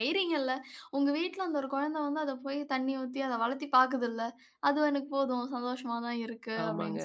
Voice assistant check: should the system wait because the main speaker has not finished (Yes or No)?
No